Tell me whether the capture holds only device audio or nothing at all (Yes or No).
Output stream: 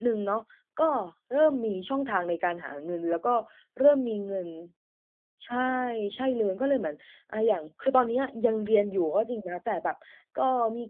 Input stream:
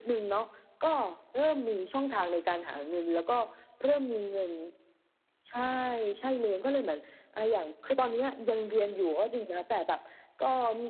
Yes